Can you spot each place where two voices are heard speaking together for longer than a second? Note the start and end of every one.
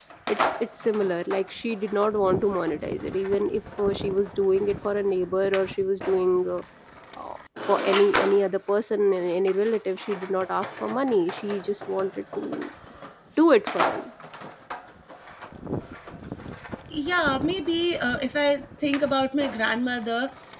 none

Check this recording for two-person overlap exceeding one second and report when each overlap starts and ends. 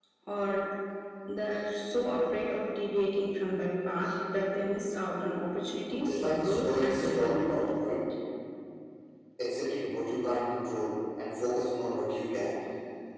6.0-7.6

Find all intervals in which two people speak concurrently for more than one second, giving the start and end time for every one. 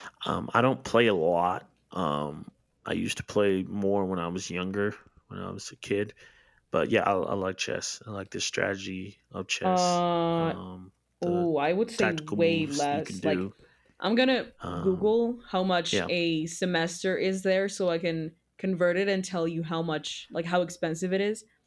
12.0-13.4

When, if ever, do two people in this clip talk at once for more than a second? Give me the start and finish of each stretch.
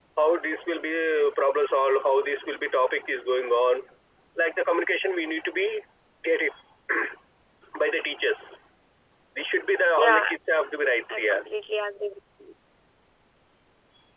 none

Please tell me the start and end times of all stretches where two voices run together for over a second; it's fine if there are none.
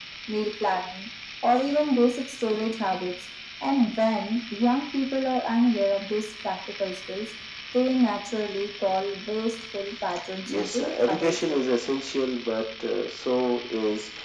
10.5-11.7

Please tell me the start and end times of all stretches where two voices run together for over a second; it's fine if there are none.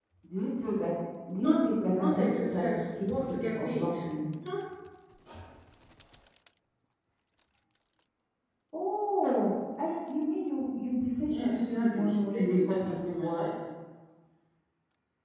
2.0-4.0, 11.2-13.5

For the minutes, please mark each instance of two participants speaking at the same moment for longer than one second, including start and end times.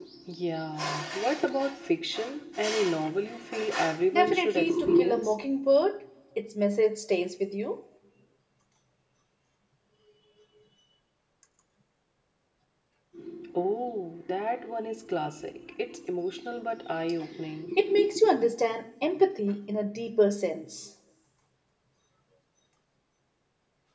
4.1-5.3

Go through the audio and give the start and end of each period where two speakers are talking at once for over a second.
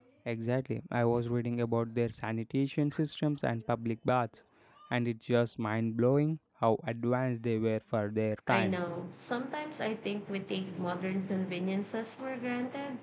none

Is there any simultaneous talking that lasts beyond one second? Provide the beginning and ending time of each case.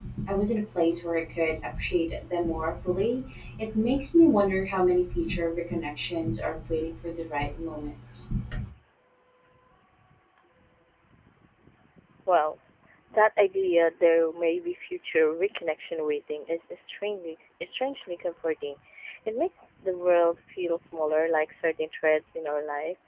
none

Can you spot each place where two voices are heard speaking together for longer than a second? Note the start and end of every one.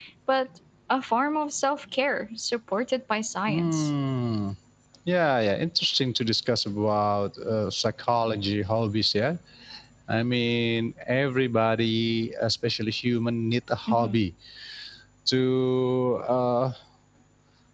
none

